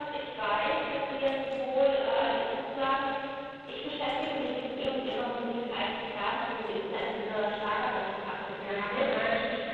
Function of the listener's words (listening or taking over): taking over